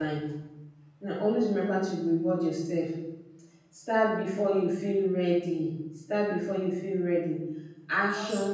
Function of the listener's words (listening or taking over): listening